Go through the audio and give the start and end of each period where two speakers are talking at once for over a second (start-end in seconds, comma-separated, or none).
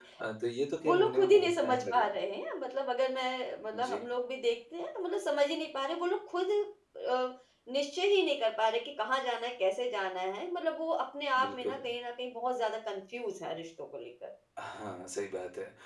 0.8-2.1